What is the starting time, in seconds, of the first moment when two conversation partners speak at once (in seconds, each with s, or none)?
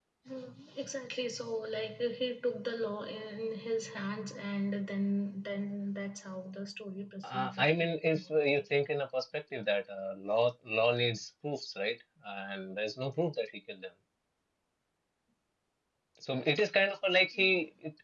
7.2 s